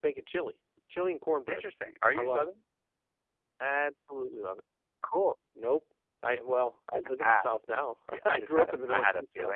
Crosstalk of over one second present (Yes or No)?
Yes